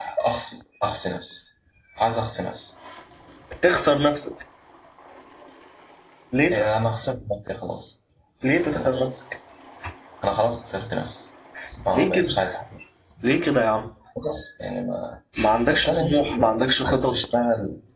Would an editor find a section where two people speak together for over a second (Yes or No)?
Yes